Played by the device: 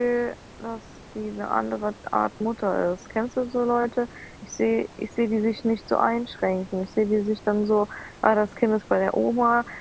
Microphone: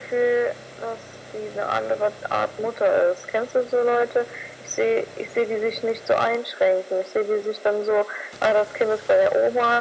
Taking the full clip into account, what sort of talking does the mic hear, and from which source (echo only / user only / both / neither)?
echo only